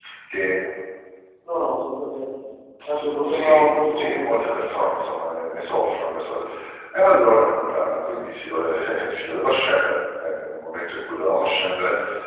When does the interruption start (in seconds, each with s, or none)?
2.9 s